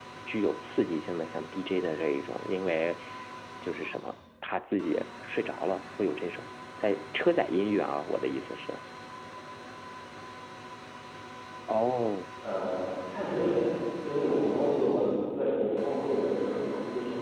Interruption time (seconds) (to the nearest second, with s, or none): none